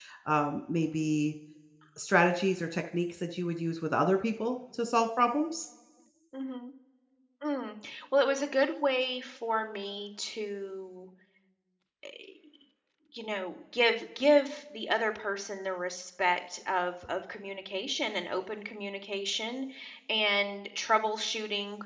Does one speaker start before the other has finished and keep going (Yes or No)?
No